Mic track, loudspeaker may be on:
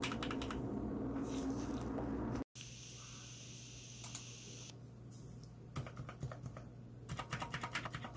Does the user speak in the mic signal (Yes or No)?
No